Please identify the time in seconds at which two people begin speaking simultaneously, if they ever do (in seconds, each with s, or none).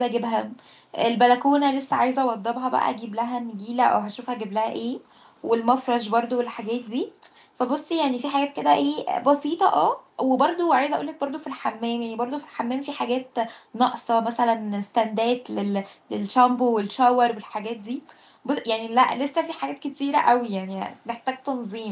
none